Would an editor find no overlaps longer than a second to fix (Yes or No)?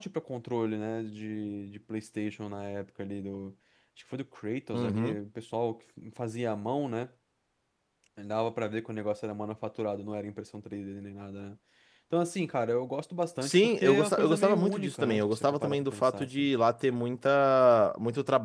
No